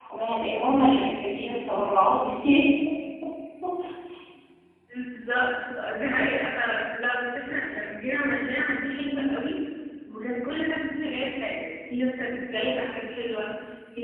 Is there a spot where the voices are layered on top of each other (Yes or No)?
No